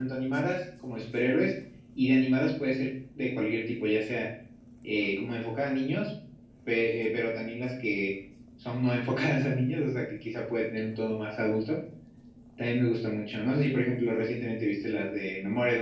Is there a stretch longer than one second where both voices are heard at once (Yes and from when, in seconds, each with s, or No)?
No